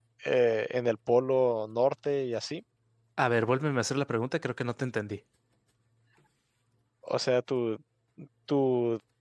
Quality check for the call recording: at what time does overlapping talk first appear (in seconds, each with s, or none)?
none